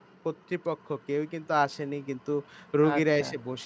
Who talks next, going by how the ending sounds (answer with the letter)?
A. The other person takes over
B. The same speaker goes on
B